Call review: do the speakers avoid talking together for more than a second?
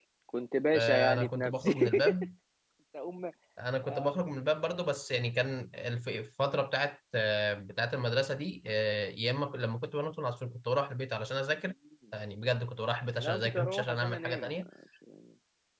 No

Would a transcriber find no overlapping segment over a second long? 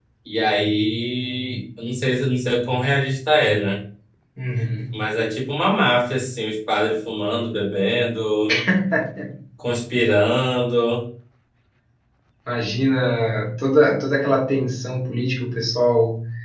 Yes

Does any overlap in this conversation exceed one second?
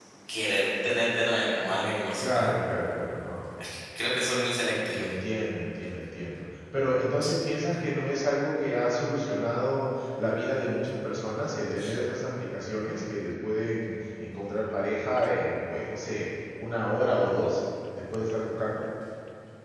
No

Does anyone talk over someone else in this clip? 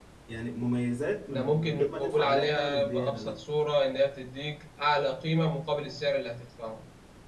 Yes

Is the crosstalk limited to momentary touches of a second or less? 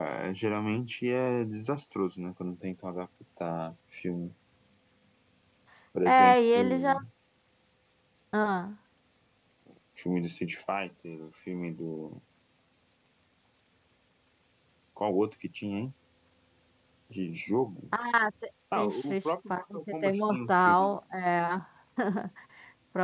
No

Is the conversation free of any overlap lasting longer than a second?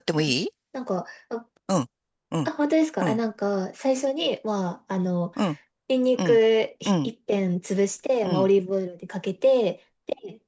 Yes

